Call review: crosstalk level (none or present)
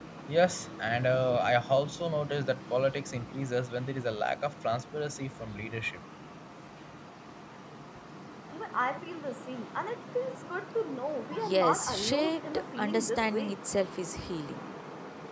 present